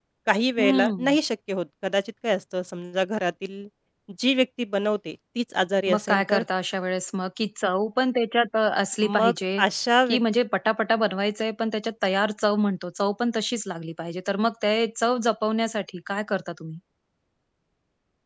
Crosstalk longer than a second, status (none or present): none